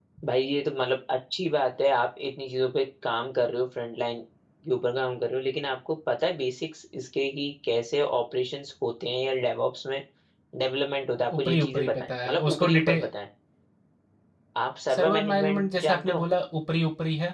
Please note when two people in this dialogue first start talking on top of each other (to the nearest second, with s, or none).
11 s